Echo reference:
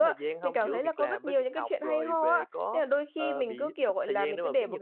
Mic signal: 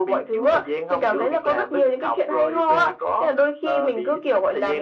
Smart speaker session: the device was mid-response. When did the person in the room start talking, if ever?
none

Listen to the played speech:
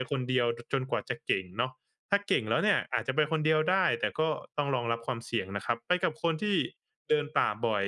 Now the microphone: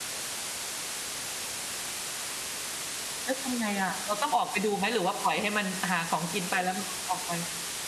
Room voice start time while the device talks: 3.2 s

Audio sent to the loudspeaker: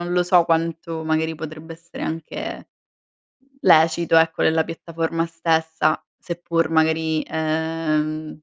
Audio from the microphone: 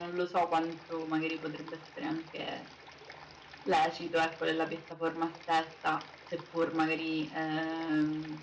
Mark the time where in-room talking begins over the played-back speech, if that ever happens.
none

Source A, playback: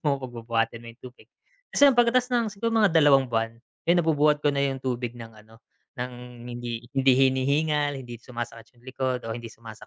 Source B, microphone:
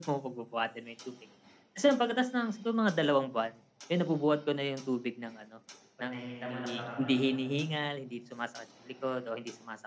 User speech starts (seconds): 6.0 s

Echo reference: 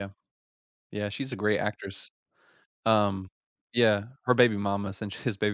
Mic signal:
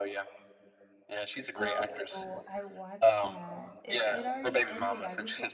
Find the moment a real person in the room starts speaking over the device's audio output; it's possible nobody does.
1.6 s

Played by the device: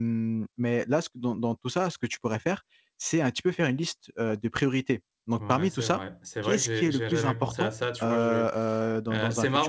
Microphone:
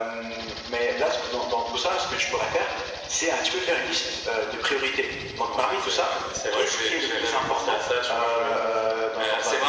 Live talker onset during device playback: none

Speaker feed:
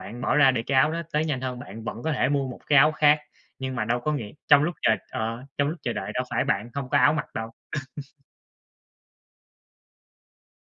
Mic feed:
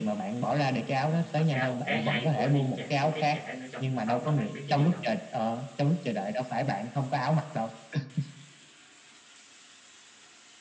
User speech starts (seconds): 1.1 s

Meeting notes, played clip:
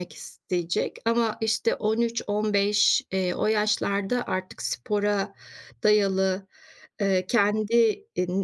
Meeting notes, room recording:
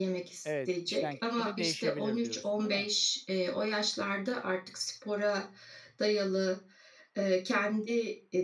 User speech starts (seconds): 0.5 s

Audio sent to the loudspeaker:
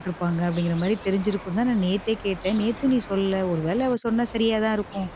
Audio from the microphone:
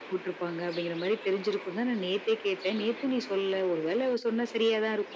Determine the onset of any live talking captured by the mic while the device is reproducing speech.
none

